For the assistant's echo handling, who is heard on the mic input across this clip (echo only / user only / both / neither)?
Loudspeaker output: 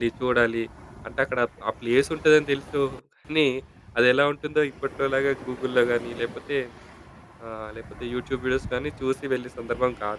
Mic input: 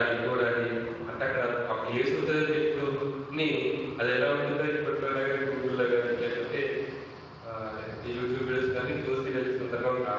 echo only